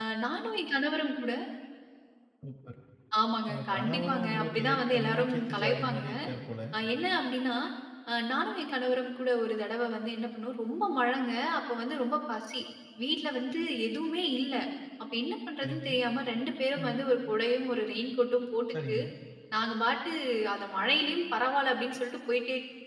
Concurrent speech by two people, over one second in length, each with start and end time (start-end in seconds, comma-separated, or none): 3.5-6.0